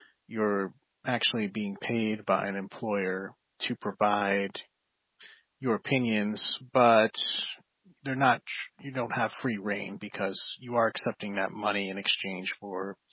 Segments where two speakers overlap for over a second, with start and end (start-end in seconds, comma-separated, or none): none